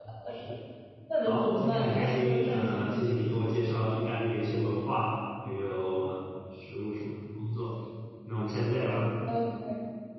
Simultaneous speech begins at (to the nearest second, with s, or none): 1 s